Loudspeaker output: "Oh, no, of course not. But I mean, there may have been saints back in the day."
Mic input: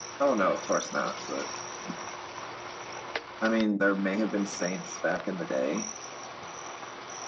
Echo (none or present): present